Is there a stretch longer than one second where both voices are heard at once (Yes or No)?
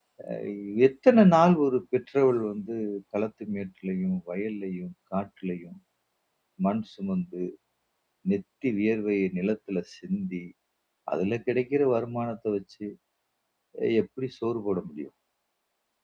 No